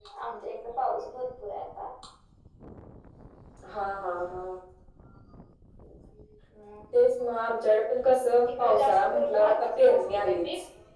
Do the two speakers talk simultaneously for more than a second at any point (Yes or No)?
Yes